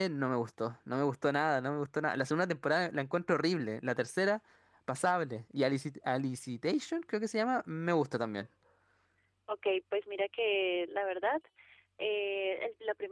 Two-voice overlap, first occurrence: none

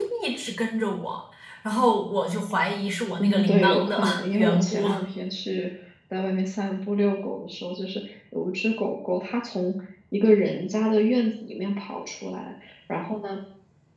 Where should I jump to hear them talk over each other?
3.2 s

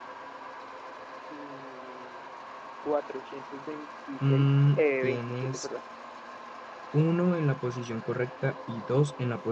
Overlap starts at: 4.2 s

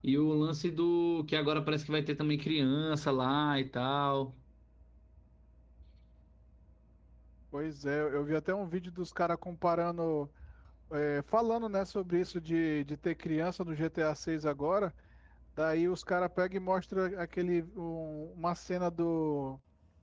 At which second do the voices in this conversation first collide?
none

